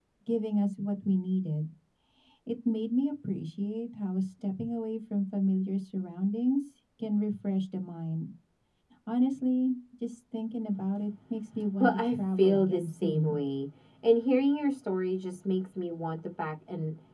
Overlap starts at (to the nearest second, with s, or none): 12 s